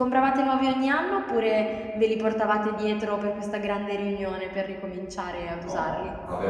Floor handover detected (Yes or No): Yes